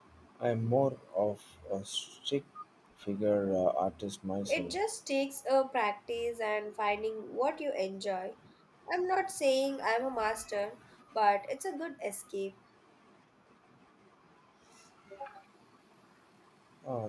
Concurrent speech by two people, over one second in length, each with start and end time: none

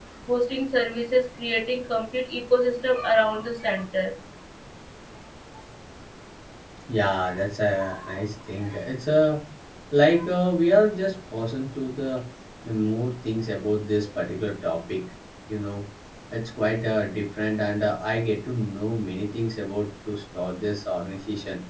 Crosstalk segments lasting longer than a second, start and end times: none

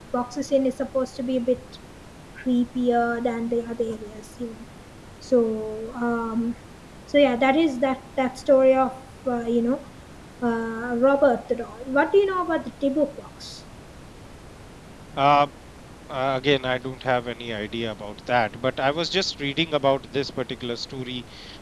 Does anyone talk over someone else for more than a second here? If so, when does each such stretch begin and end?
none

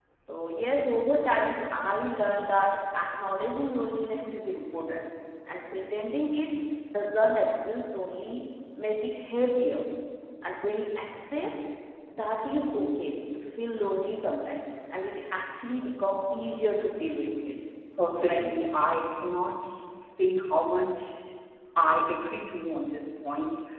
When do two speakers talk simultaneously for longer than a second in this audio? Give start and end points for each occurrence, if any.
none

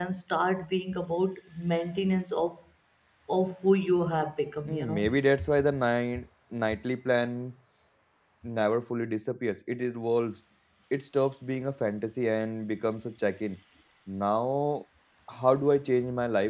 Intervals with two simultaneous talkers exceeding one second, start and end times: none

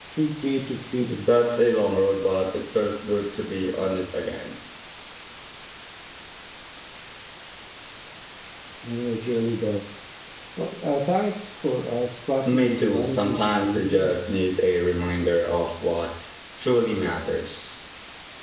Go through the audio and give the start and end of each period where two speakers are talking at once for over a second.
12.5-14.1

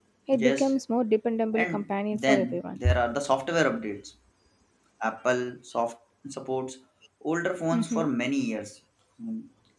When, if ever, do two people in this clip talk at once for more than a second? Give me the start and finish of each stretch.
1.5-2.8

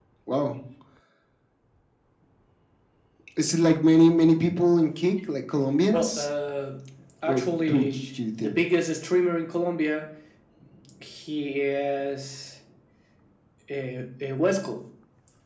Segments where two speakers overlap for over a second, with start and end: 7.3-8.6

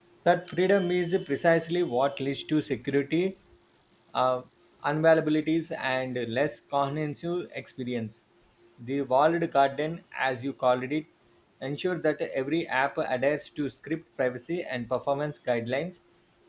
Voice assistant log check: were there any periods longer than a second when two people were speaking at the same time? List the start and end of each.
none

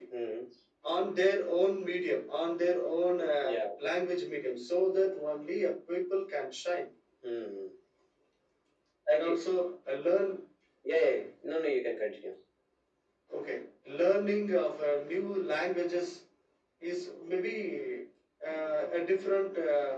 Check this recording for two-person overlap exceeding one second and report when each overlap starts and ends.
none

